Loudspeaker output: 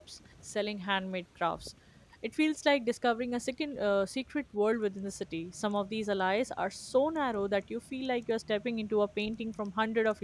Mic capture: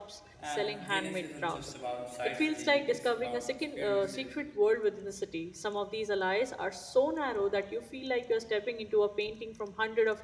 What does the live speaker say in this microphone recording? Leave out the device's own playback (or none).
and Venice isn't just about sightseeing, it's about experiences,